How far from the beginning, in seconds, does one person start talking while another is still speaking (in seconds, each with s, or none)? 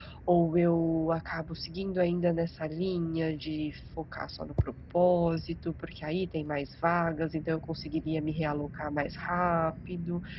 none